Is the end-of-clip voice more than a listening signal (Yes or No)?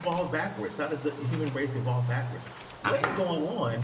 No